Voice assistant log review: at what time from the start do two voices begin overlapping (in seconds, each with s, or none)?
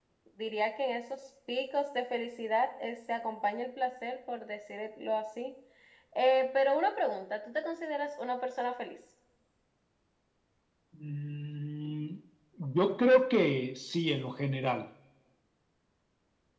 none